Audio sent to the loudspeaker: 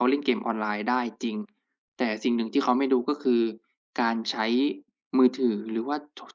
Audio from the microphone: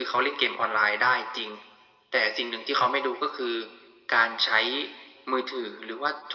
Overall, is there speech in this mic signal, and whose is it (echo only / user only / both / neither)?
echo only